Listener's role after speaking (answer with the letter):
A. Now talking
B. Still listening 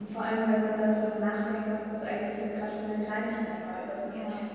B